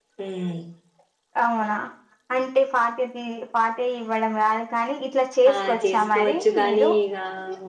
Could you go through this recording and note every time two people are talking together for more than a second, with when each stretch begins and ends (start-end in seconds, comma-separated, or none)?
5.5-6.9